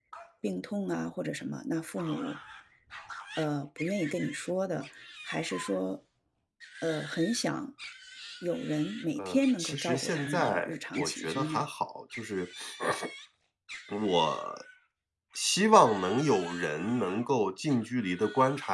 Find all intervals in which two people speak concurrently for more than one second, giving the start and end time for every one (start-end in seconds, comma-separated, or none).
9.2-11.6